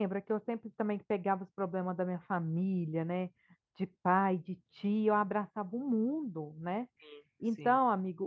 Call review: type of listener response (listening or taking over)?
listening